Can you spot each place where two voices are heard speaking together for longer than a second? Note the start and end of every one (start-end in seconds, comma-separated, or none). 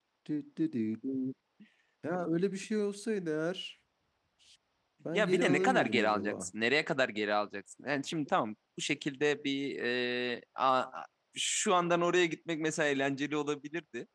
5.1-6.5